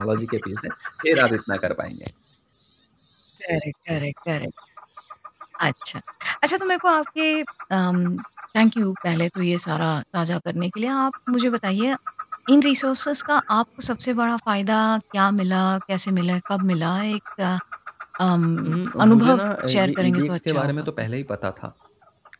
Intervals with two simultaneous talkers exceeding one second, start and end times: 18.6-20.9

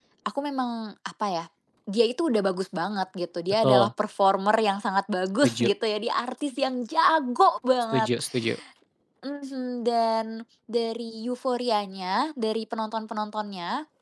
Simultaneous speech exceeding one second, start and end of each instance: none

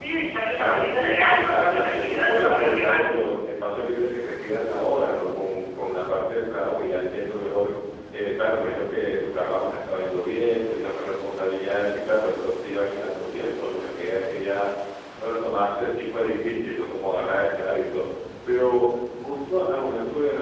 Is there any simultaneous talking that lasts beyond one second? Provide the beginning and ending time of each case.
0.6-3.0

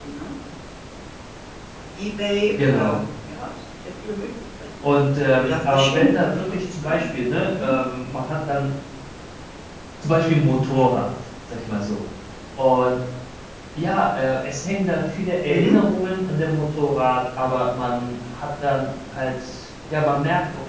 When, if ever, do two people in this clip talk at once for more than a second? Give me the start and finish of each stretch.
5.4-7.0

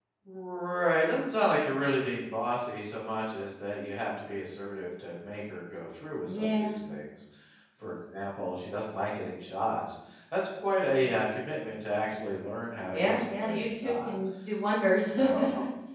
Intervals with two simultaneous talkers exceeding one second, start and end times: 12.9-14.1

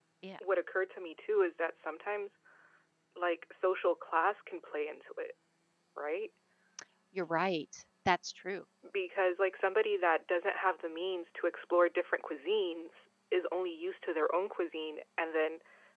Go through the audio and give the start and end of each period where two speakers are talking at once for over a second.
none

